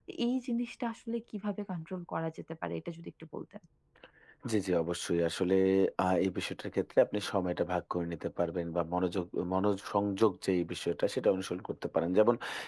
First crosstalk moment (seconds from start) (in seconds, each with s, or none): none